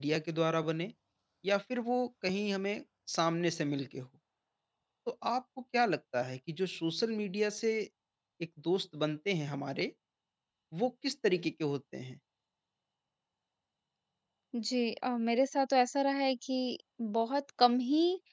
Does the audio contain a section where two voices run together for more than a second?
No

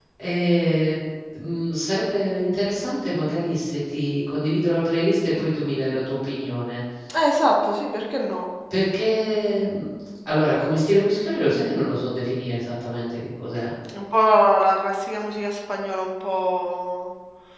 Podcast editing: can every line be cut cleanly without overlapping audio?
Yes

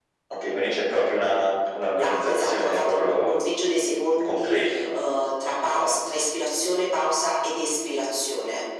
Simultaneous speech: Yes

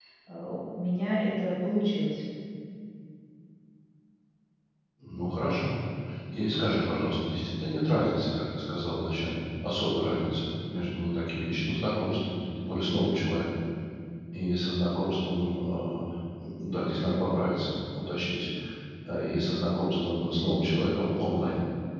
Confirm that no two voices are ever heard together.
Yes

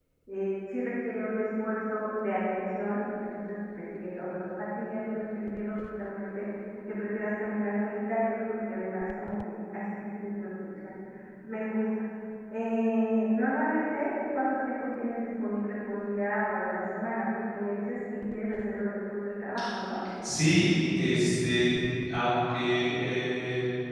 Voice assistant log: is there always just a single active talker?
Yes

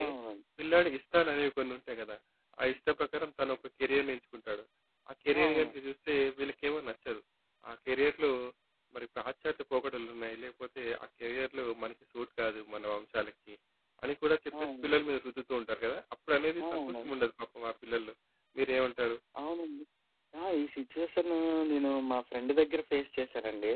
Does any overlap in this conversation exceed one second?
No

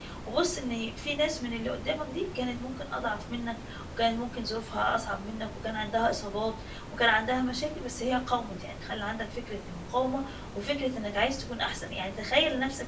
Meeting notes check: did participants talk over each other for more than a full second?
No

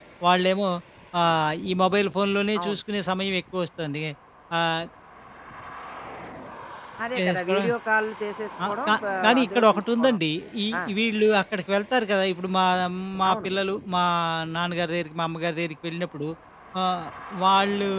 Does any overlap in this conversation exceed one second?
Yes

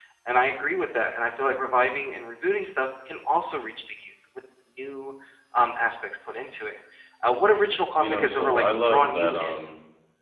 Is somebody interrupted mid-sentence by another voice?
Yes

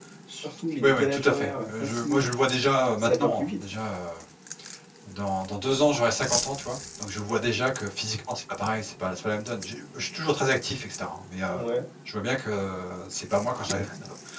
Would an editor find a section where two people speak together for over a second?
Yes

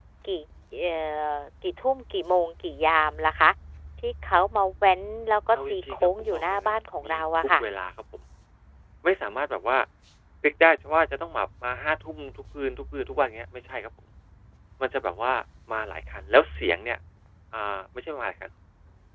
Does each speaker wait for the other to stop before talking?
No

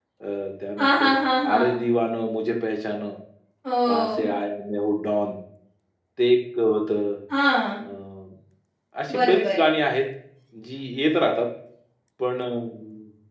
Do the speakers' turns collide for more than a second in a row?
No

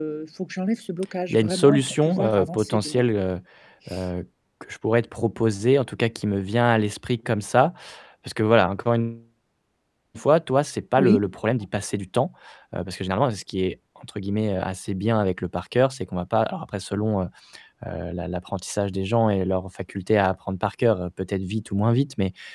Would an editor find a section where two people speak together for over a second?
Yes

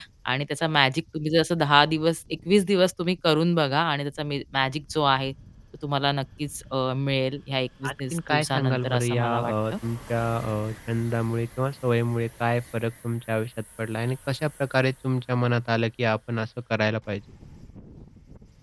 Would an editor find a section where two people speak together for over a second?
Yes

